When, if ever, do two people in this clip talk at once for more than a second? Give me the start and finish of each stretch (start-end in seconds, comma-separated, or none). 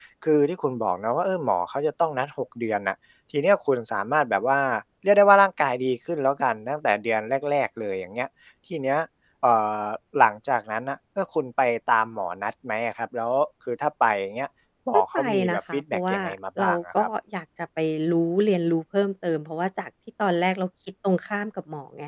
14.9-16.2